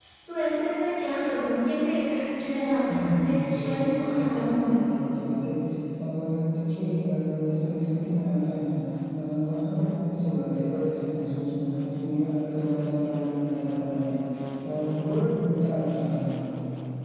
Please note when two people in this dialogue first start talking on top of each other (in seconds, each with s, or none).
2.9 s